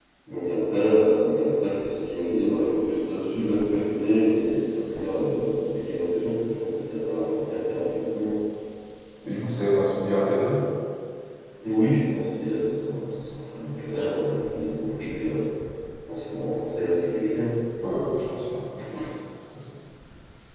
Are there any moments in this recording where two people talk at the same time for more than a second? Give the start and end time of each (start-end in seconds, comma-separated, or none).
none